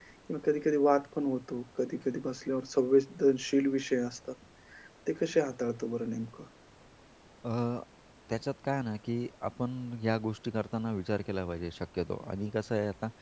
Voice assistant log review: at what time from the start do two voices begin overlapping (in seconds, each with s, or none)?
none